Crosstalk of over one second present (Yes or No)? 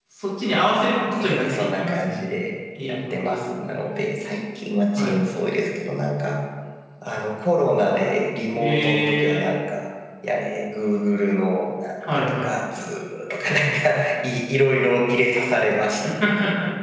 Yes